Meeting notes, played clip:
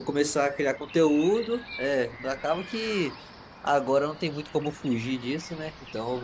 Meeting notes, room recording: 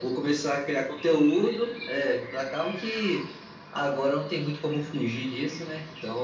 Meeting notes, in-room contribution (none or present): none